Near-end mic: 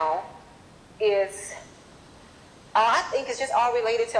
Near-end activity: none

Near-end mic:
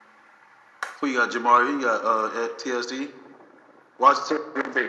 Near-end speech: none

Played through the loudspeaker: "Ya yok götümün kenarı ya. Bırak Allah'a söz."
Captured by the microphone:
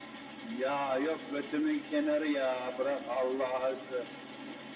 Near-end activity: none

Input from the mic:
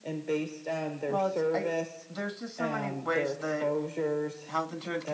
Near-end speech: present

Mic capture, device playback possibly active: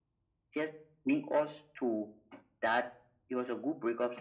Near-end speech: none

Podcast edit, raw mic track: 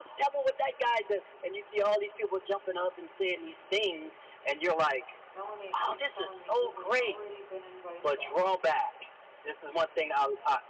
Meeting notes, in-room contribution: present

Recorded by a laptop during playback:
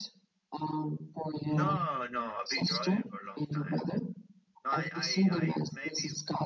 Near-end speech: present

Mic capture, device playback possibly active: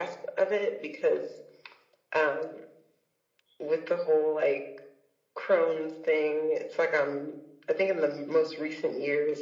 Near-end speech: none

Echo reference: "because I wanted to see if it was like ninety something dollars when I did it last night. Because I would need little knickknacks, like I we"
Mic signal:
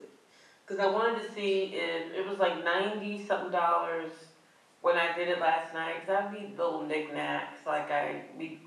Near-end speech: none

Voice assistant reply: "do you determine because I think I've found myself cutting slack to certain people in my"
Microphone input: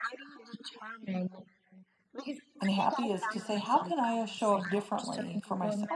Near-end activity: present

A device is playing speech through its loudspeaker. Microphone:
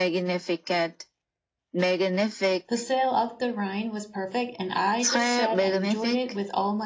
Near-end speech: present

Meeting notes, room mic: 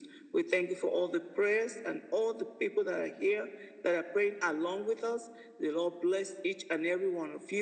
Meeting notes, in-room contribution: none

